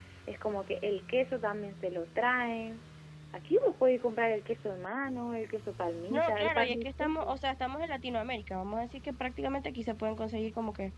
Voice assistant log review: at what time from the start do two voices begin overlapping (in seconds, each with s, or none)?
6.1 s